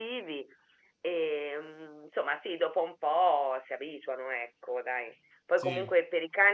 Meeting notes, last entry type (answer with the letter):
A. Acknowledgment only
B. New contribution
A